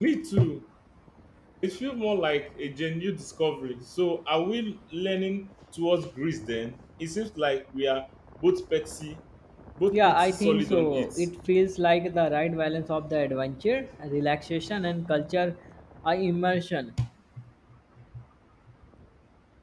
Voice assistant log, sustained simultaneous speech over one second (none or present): present